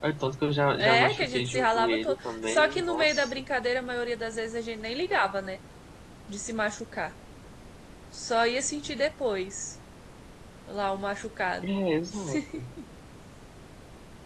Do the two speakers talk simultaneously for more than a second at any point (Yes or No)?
Yes